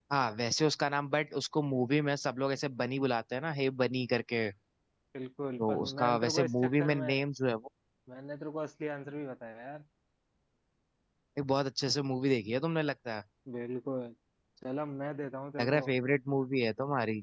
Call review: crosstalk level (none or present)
present